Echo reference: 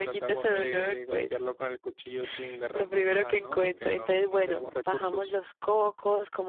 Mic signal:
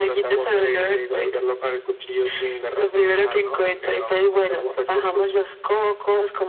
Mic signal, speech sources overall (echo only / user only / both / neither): echo only